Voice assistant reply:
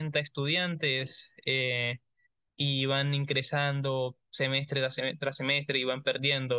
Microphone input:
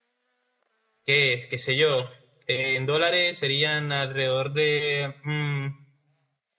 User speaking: Yes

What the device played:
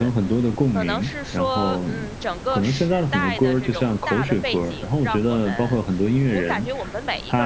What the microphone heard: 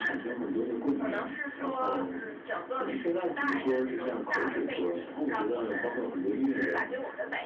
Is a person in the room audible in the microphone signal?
No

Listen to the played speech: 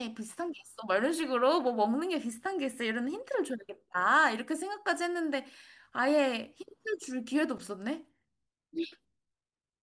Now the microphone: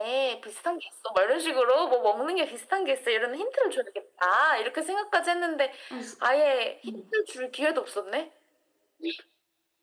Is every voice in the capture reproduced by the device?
No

